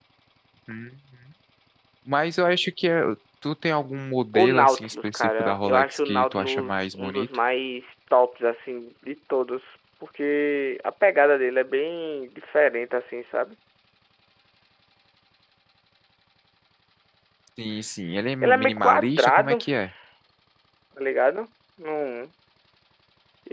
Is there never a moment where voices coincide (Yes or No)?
No